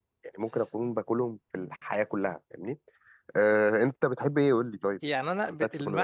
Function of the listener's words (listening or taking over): taking over